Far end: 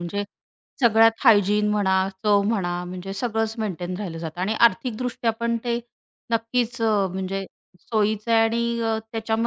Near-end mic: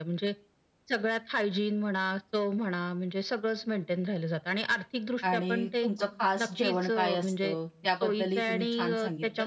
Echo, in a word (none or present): present